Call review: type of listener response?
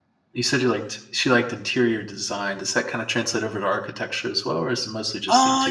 taking over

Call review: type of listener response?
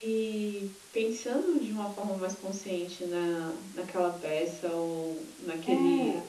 listening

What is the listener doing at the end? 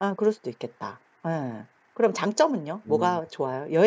listening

